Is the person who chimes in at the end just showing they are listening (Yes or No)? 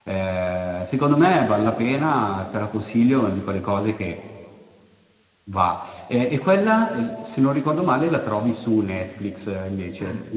No